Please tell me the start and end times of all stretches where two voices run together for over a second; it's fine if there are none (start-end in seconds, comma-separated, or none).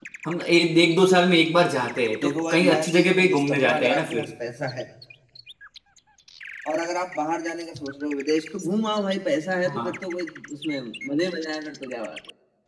2.2-4.2